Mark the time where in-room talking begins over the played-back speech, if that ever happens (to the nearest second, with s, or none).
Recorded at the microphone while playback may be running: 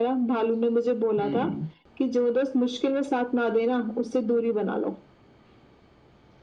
1 s